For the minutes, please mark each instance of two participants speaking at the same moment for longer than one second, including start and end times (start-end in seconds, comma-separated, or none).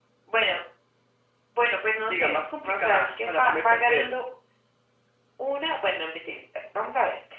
2.1-4.1